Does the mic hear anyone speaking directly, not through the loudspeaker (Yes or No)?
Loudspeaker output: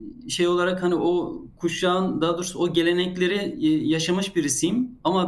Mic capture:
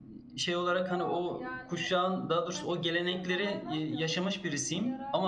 Yes